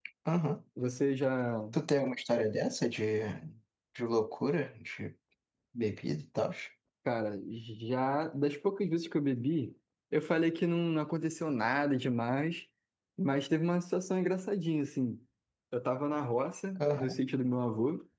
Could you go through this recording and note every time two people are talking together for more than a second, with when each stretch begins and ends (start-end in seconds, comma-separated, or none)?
none